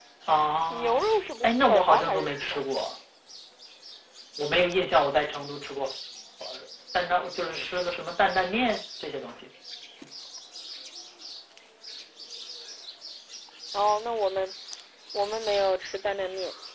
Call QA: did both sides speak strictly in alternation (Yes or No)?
No